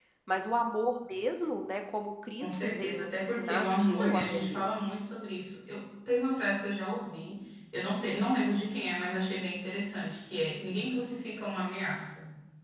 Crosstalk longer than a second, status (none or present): present